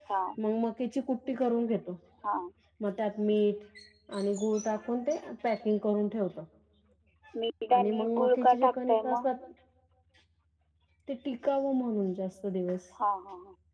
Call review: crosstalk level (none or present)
present